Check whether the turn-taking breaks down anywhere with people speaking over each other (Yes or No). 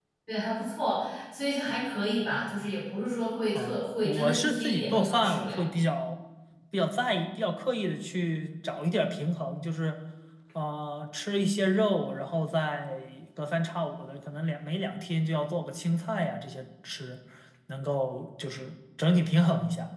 Yes